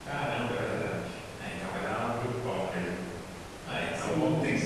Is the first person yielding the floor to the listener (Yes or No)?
Yes